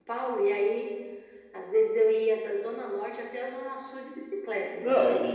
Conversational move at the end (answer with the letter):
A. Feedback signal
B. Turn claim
B